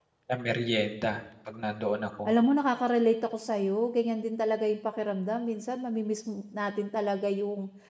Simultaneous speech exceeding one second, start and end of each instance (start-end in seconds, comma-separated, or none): none